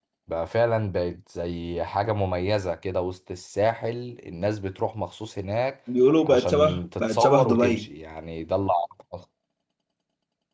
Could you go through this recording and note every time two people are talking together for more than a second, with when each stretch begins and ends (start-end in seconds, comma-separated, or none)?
6.3-7.9